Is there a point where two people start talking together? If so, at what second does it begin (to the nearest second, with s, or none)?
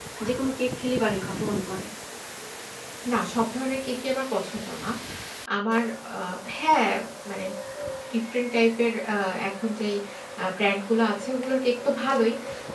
none